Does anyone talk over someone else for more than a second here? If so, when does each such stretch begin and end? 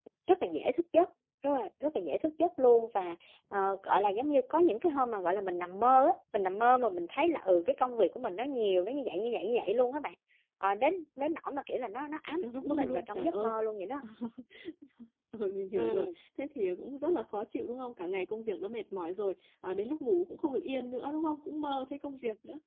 12.3-13.6

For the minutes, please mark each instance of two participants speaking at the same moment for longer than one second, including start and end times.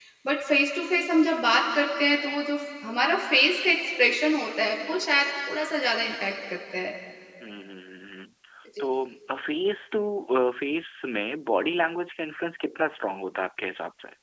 none

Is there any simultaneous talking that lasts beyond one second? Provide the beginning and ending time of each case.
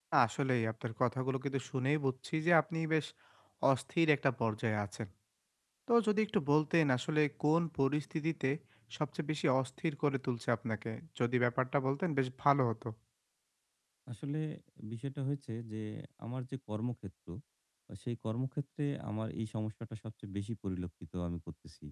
none

